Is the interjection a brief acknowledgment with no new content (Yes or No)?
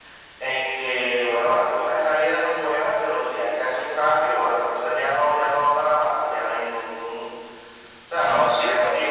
No